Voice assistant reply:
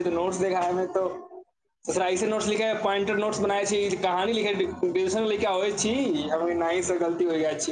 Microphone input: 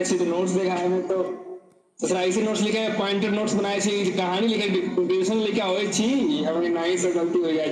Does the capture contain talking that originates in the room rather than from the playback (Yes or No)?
No